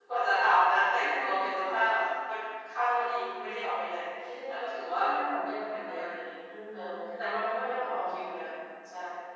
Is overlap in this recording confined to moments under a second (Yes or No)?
No